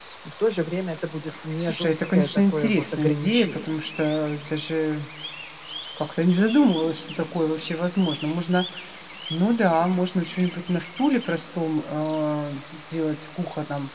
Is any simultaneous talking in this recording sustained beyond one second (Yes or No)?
Yes